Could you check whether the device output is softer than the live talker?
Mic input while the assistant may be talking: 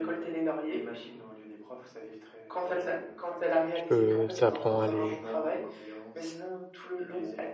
Yes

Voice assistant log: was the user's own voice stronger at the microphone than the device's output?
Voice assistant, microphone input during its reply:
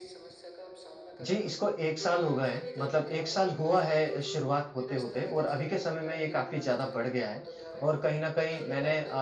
Yes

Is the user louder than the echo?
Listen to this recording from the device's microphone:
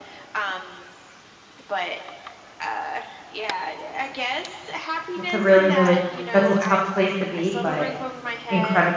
Yes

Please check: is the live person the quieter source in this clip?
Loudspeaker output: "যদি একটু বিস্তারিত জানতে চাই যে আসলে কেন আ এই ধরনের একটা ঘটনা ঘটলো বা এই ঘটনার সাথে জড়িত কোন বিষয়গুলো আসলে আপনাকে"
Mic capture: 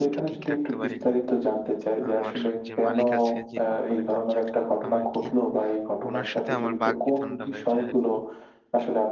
Yes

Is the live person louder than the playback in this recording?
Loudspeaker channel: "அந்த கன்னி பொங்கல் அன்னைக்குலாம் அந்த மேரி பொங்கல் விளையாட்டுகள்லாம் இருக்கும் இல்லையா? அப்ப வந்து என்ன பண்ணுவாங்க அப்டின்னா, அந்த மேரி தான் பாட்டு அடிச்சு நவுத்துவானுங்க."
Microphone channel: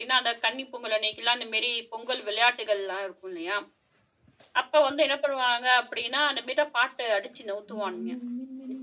No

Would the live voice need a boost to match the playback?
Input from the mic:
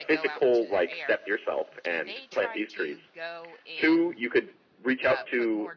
Yes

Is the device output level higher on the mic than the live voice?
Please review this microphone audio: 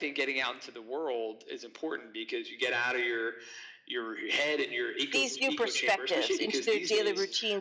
No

